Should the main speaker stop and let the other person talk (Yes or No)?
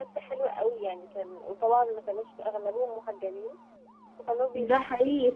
Yes